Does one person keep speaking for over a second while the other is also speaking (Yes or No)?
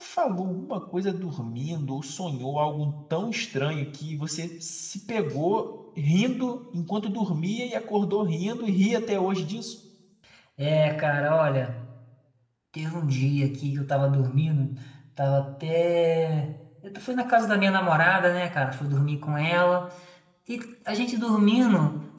No